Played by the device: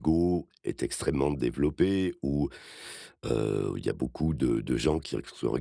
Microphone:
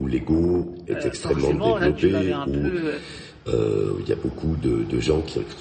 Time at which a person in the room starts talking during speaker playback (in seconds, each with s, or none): 0.9 s